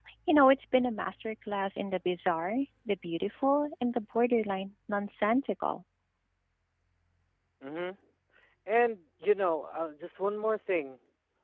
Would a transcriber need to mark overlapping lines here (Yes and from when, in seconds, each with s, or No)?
No